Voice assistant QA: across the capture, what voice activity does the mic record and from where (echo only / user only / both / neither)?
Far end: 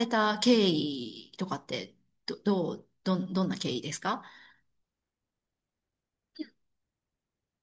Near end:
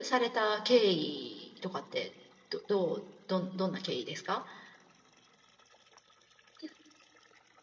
echo only